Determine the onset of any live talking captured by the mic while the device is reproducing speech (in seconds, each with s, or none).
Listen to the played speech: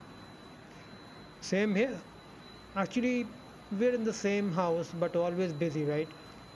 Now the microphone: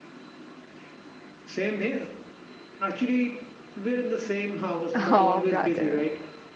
4.9 s